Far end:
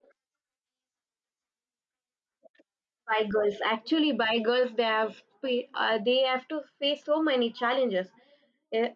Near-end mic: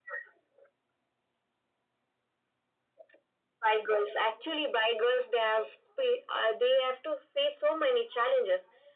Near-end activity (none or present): none